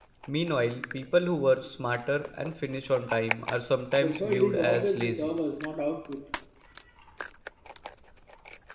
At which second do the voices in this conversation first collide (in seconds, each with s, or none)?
4.0 s